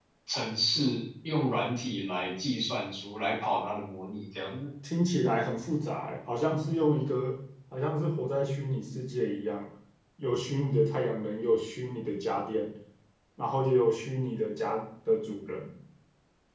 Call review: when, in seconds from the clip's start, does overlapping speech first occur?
none

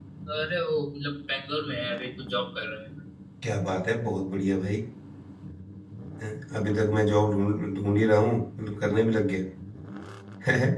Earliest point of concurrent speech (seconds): none

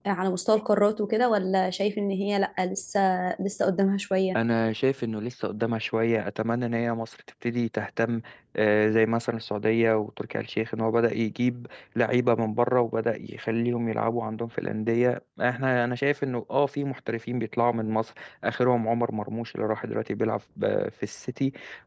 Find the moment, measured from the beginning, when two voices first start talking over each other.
none

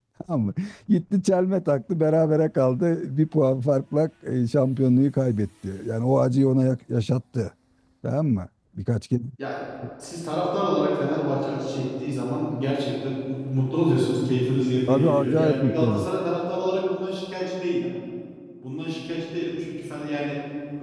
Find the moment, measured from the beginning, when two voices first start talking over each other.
15 s

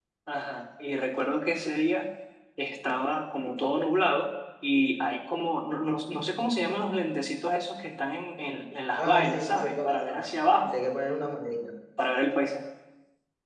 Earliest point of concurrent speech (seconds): 9 s

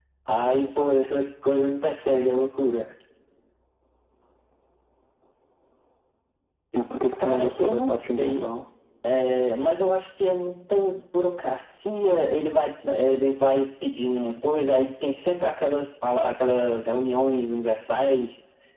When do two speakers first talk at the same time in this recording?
7 s

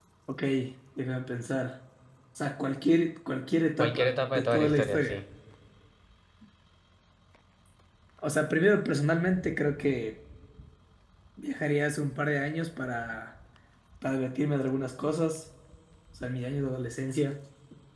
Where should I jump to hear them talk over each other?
4 s

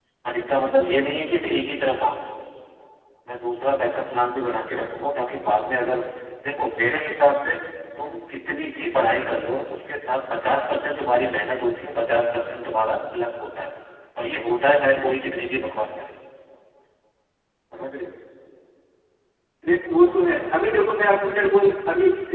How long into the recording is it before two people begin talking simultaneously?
none

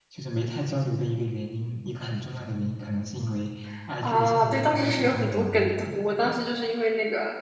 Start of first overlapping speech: 4 s

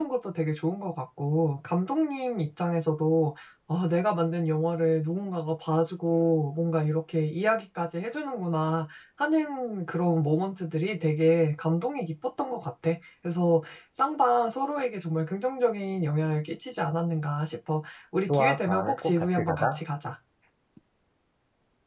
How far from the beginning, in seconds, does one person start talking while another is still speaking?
18 s

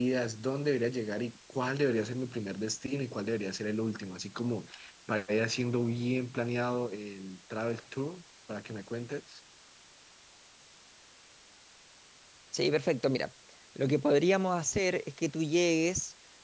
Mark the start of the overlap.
none

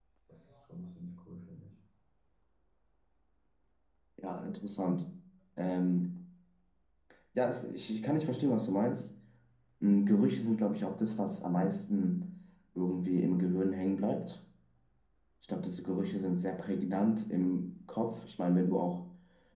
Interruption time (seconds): none

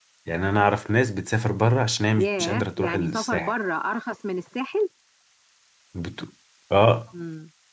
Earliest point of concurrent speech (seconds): 2 s

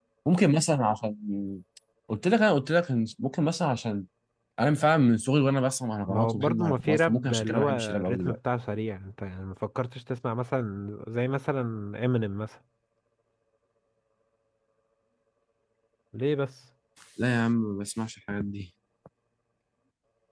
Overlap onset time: 6 s

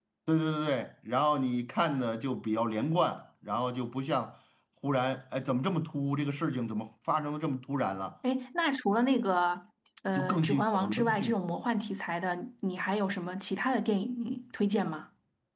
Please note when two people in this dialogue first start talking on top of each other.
10 s

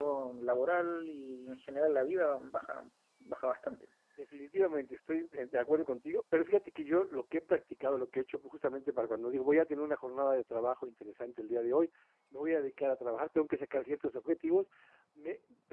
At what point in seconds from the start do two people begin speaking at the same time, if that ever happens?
none

